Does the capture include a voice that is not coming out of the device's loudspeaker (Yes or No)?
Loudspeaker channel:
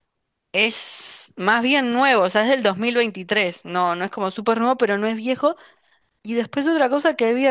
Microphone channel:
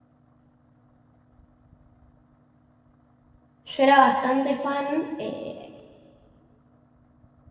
Yes